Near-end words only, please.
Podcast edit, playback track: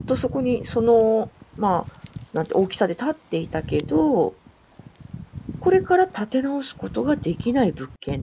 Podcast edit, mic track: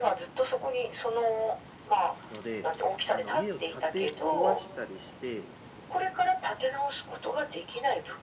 ので、あの、家を建て壊したりして、

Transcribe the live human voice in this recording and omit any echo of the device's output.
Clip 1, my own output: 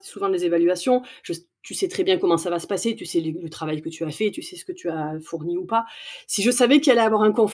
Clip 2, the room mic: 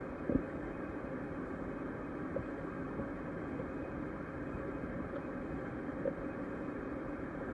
none

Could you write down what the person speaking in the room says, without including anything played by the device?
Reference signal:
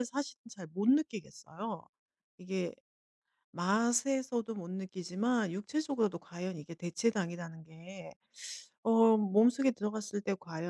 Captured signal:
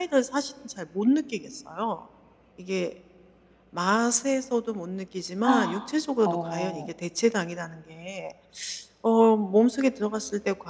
아. 어

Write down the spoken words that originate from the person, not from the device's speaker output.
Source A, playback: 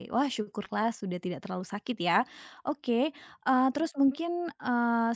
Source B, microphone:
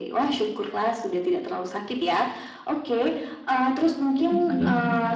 gitu sih.

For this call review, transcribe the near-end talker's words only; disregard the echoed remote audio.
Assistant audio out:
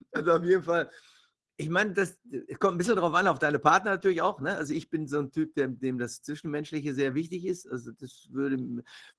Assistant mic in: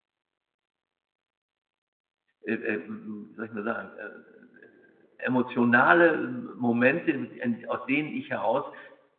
äh, äh, hm, wie soll ich mal sagen, äh, emotionale ähm, Momente, en aus denen ich heraus

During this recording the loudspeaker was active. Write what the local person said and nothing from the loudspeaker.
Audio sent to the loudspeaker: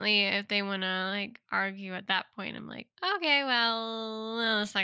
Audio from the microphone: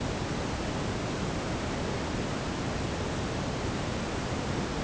none

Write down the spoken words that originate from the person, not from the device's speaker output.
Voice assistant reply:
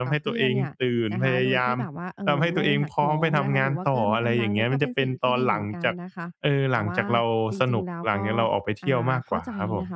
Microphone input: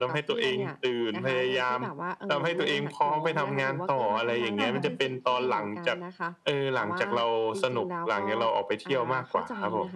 ค่ะ

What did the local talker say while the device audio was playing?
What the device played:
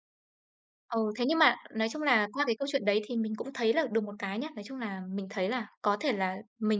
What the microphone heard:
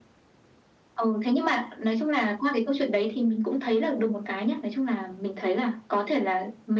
none

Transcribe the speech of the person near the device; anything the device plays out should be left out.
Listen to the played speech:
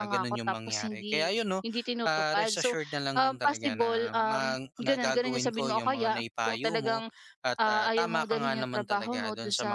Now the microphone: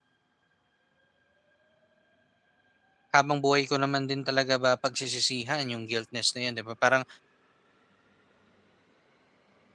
Habang buhay ko naman din talaga ba pagsisisihan yung guiltness na yun, 'di ba? Parang

